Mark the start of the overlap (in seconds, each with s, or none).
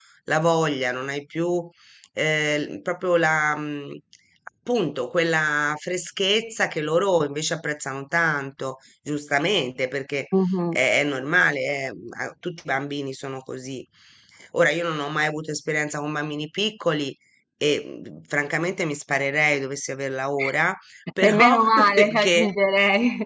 21.2 s